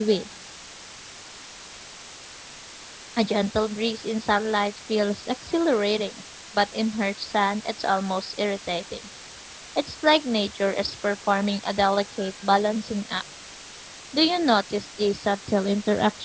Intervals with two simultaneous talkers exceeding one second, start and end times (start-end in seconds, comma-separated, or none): none